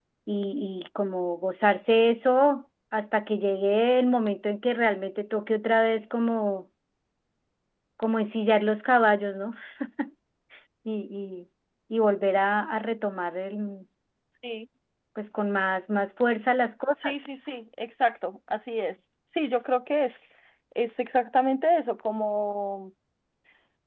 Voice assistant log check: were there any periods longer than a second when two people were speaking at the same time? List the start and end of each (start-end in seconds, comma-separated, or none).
none